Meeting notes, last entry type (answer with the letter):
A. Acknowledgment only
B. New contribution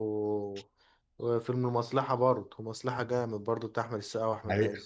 B